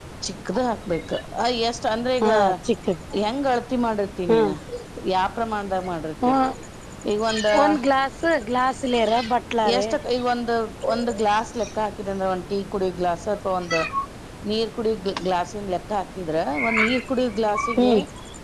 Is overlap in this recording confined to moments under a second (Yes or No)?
Yes